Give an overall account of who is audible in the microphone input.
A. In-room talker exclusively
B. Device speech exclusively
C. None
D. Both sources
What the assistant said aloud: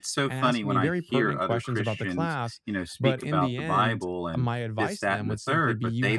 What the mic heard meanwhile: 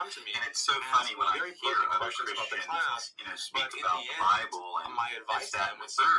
B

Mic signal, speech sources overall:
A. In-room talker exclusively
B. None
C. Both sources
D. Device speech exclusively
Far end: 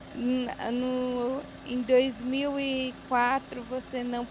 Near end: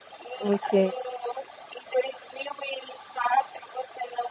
C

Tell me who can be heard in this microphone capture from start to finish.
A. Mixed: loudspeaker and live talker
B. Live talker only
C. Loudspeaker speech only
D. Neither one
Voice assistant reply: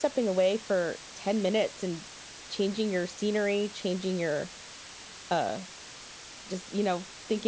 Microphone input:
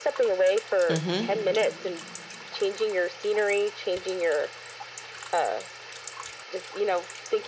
A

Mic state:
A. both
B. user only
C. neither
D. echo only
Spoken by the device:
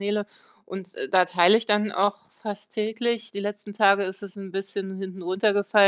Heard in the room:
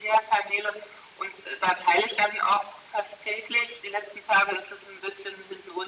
D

